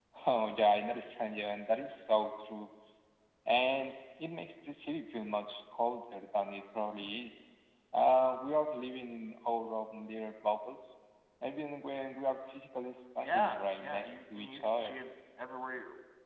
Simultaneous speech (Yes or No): Yes